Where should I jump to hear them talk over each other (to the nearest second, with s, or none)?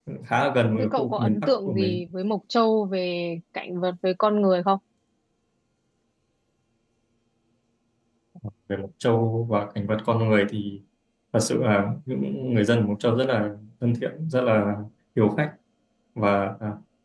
1 s